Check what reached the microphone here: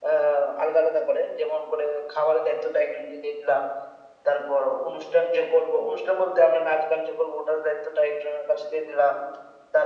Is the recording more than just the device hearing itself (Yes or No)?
No